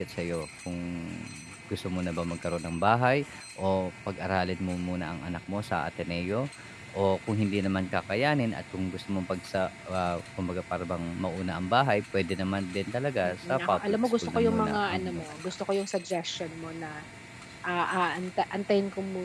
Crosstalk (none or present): present